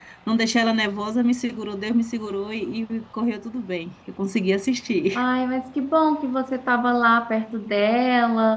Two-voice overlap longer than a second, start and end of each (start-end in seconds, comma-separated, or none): none